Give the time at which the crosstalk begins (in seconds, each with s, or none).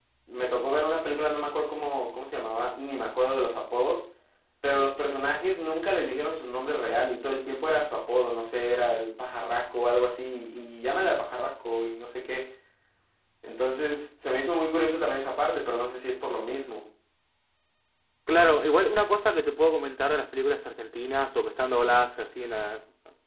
none